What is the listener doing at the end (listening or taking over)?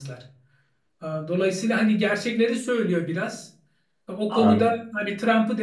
listening